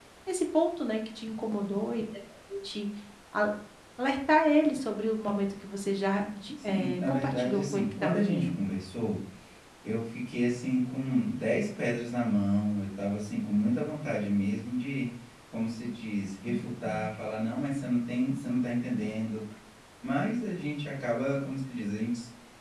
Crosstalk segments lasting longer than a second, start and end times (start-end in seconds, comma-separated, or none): 6.6-8.4